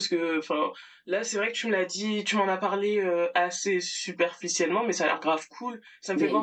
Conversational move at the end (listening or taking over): taking over